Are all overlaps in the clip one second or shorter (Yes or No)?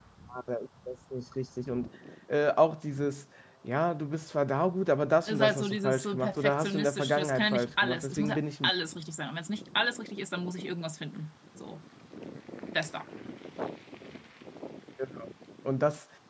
No